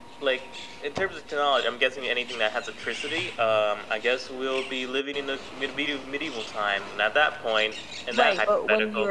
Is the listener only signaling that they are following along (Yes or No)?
No